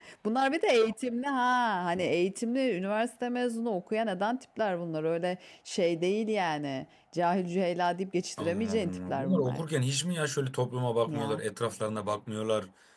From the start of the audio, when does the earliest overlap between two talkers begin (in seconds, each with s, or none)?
8.4 s